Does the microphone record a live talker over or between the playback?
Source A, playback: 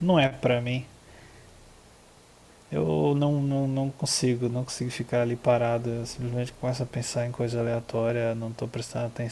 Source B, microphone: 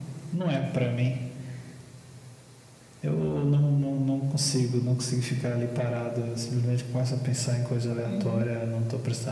Yes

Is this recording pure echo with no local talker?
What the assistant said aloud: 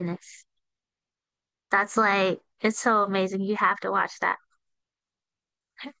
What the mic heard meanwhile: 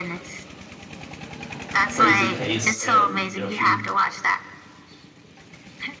No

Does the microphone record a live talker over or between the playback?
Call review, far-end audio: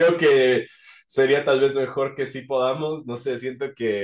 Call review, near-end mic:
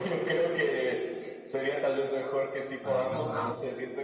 Yes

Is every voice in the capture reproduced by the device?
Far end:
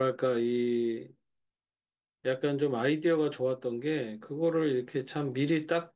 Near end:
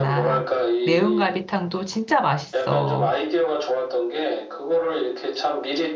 No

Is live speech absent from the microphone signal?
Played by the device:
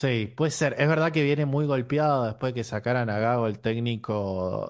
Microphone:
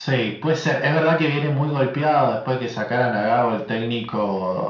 Yes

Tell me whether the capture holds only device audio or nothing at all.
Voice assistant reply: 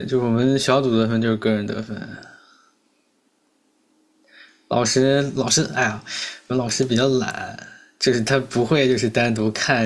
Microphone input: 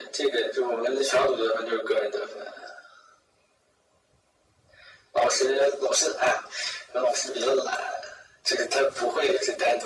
Yes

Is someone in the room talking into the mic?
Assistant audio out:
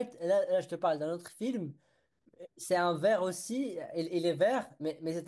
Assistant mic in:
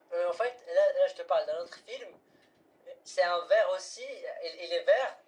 No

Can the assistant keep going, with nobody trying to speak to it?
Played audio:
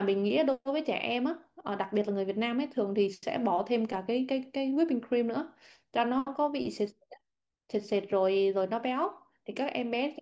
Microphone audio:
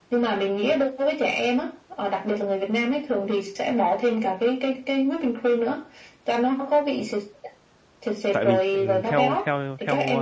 No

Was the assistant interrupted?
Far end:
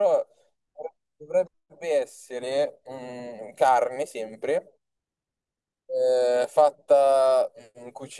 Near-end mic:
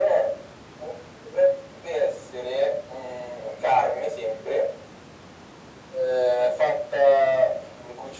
No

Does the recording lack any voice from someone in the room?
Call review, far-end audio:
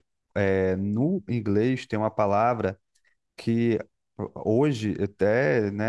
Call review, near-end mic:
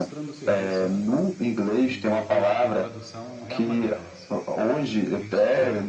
No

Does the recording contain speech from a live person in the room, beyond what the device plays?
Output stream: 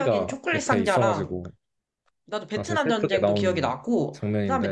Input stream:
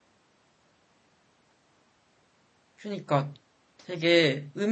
Yes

